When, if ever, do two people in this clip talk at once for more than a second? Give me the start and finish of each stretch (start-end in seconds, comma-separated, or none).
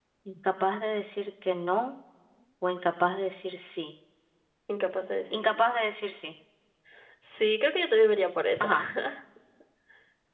none